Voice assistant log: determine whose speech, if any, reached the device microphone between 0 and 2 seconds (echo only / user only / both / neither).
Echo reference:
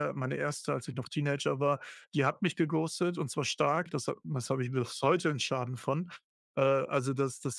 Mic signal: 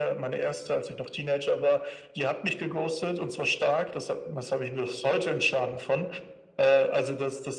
echo only